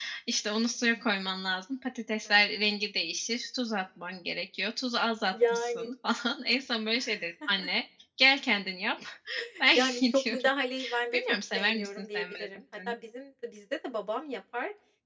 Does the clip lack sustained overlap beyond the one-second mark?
No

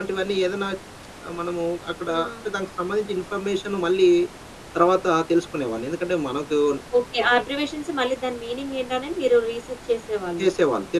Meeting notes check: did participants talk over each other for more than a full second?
No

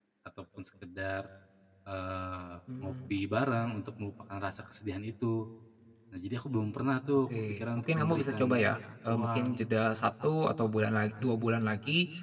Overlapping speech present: Yes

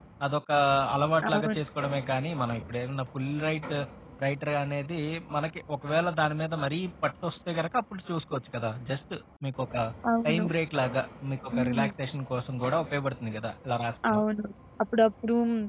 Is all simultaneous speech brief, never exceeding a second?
Yes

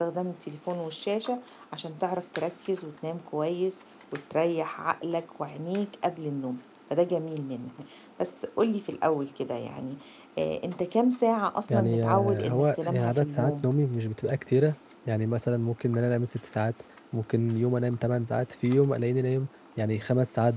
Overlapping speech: Yes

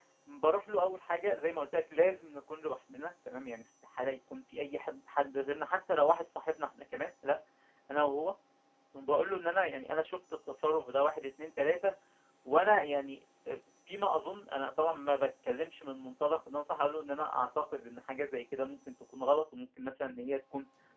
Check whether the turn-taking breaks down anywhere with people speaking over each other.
No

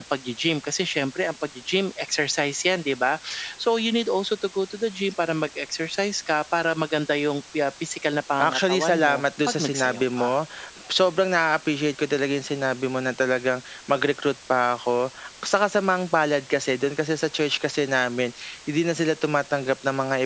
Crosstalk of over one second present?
Yes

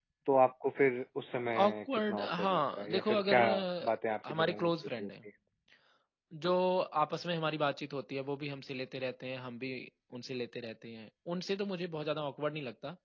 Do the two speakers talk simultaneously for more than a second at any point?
Yes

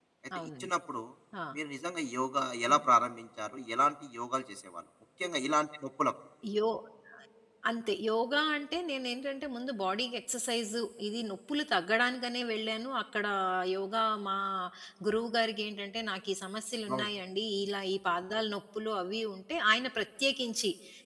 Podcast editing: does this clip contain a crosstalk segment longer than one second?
No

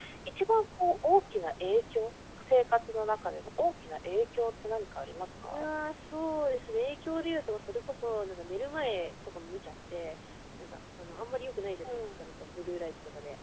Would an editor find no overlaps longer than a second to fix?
Yes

